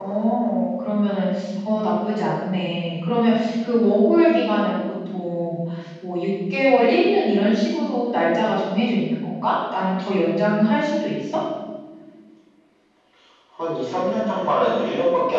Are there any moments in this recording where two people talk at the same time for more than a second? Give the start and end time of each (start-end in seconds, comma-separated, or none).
none